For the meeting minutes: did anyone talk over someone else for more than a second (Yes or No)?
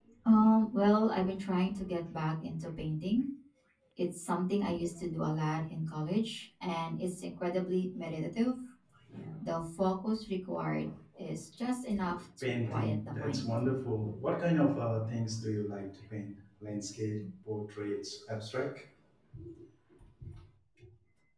Yes